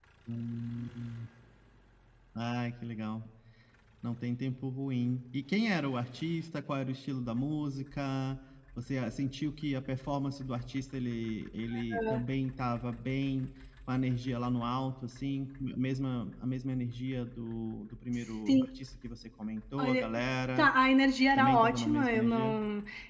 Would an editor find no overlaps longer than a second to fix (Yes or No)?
No